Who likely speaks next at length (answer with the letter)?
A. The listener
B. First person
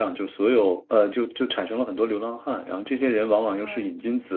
B